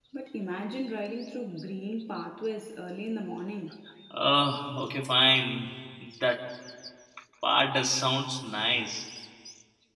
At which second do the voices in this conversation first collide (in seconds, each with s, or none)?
none